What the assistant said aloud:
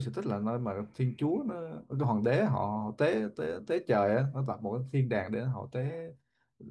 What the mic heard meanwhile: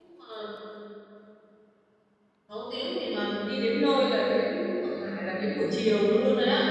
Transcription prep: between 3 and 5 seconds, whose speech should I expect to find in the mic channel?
user only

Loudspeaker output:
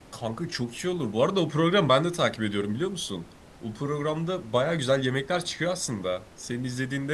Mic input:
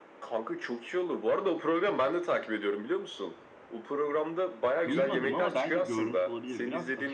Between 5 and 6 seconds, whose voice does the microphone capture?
both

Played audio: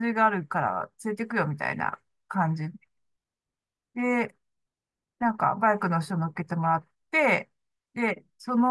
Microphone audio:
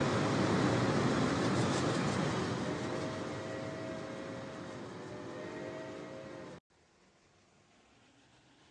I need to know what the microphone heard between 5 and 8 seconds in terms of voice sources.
neither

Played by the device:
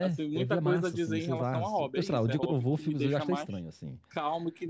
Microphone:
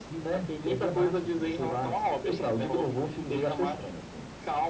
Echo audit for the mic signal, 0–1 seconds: echo only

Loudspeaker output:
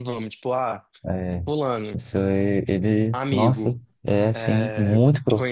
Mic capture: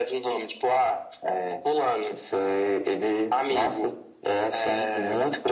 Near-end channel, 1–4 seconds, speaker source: echo only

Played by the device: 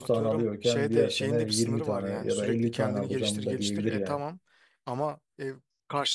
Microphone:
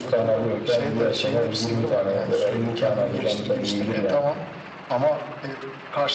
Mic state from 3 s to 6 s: echo only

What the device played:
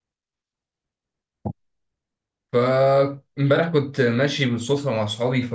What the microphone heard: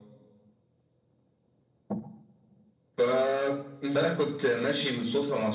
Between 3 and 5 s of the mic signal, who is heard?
echo only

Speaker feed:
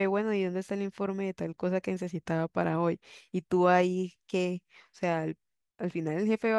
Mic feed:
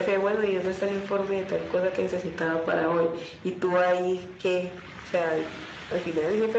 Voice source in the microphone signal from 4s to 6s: echo only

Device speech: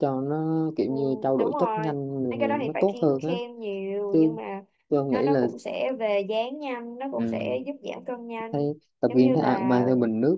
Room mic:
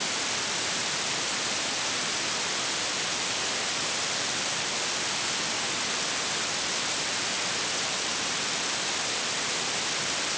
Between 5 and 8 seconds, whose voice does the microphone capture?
neither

